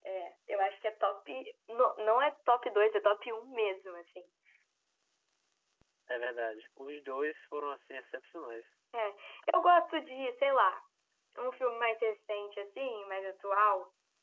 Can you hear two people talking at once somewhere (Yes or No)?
No